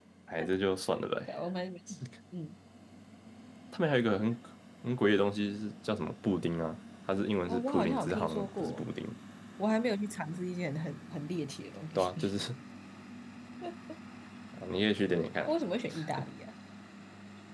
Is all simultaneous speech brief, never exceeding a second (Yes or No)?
No